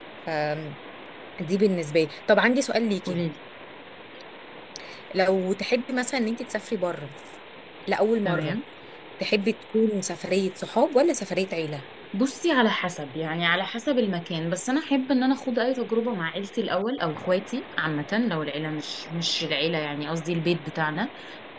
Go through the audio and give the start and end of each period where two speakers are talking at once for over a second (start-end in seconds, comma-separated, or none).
none